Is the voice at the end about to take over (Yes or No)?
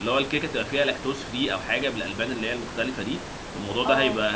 No